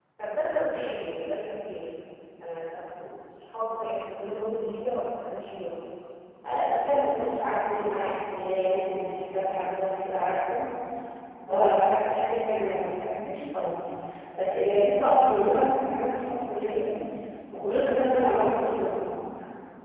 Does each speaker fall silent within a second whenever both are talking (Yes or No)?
Yes